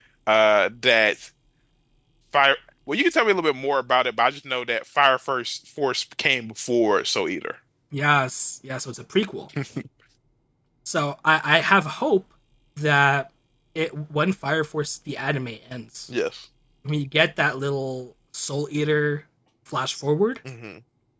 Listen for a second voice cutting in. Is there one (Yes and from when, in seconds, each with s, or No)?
No